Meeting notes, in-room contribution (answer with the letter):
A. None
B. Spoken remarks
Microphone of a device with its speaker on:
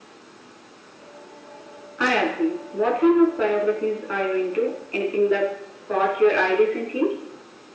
A